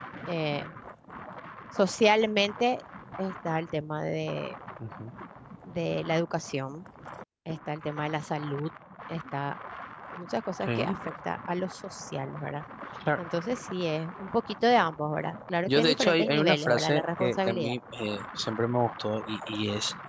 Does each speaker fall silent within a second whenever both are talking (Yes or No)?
No